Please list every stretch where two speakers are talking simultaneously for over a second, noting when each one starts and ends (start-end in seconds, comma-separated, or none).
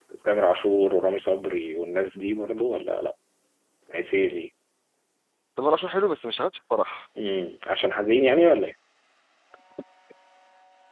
none